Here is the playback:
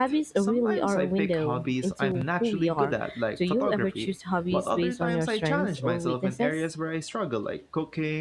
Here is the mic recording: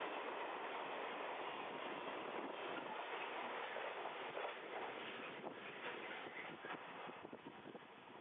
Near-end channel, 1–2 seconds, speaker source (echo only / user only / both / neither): neither